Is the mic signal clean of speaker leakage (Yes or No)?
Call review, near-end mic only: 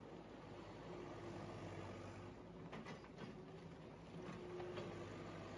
Yes